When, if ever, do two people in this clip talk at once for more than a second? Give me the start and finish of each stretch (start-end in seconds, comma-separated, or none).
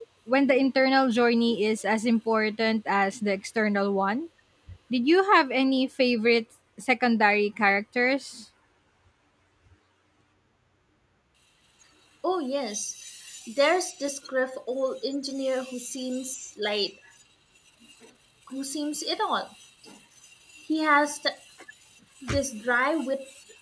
none